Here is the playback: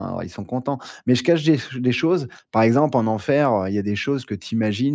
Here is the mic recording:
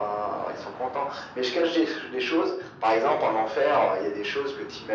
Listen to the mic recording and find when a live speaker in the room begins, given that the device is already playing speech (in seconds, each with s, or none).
none